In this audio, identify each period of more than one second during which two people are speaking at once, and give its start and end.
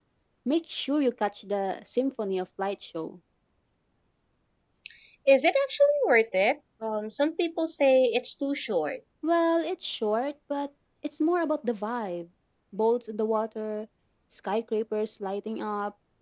none

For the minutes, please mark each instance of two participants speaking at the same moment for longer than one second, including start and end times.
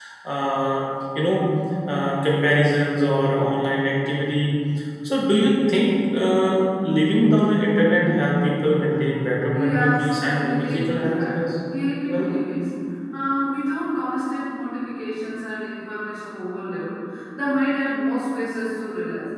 9.5-11.4

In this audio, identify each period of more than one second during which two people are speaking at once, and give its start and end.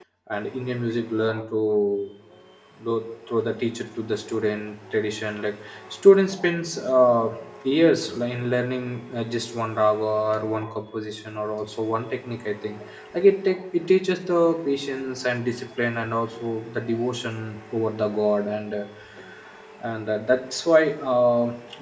none

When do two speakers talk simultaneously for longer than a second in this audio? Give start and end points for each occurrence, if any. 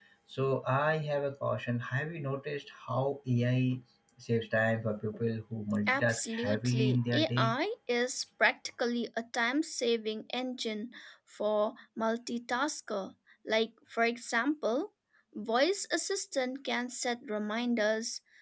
5.9-7.6

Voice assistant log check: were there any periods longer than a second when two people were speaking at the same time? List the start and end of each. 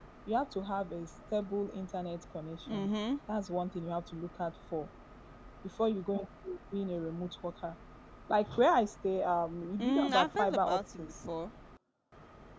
9.8-11.1

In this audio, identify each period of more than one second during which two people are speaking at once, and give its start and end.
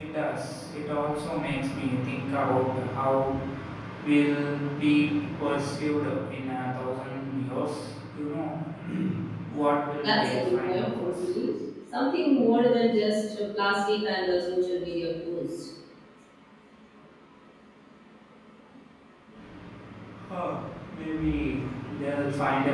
10.0-11.2

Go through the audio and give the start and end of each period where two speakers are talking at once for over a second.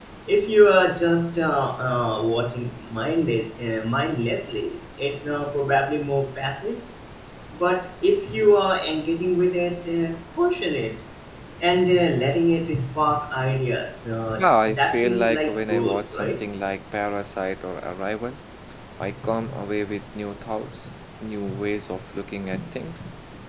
14.4-16.4

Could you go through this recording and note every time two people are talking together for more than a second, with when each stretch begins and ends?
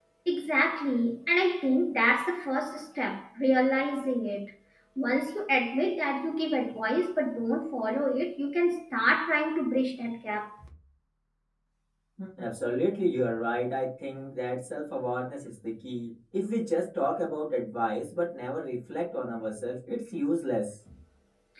none

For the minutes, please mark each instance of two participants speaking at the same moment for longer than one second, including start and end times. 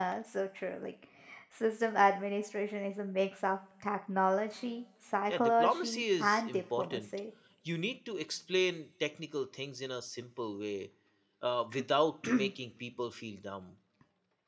5.3-7.0

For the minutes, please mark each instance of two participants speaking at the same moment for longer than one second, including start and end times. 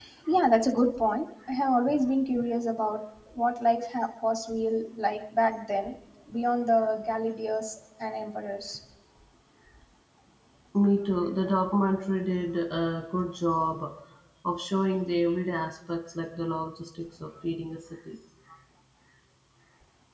none

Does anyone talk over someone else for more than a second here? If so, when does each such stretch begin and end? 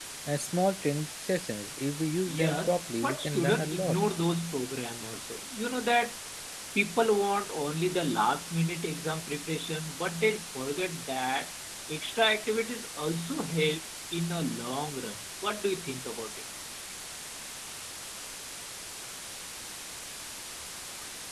2.3-4.0

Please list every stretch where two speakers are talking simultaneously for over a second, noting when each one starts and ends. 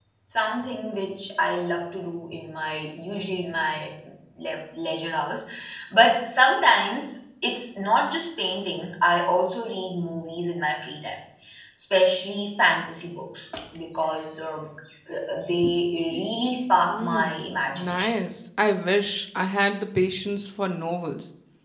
16.8-18.1

